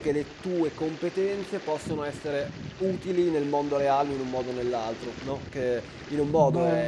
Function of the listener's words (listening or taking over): listening